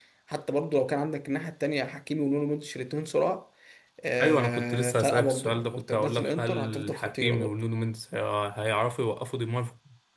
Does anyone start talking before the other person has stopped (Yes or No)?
Yes